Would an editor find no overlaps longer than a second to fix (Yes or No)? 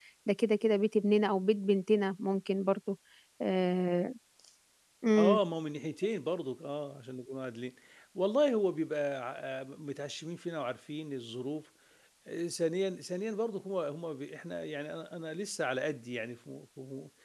Yes